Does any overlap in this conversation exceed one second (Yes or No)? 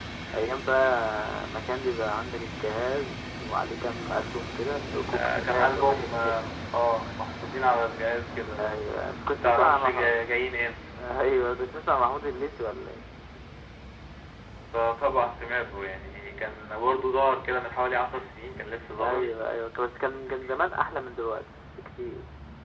Yes